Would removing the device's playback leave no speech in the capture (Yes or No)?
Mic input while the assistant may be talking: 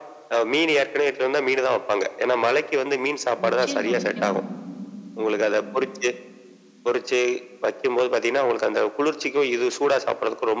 No